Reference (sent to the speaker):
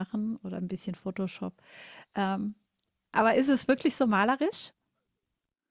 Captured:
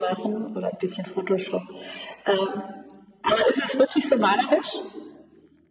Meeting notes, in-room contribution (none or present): none